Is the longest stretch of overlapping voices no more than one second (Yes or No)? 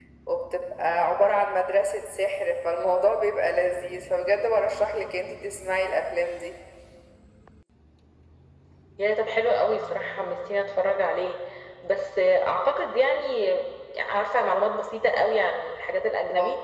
Yes